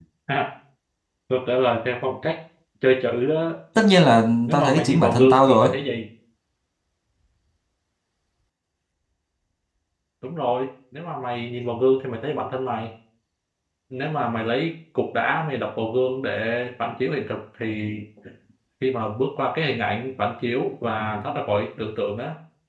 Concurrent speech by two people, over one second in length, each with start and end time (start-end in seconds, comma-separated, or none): 4.5-5.7